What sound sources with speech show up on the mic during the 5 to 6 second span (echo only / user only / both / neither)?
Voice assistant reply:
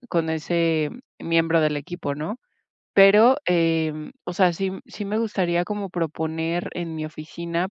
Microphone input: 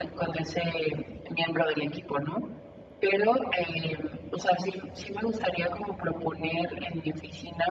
echo only